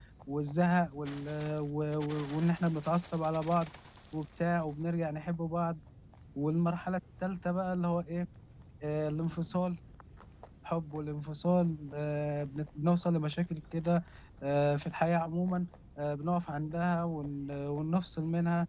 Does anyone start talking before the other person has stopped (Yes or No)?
No